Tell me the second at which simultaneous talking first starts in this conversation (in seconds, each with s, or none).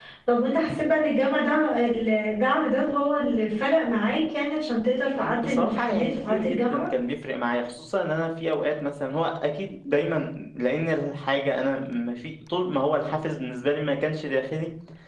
5.2 s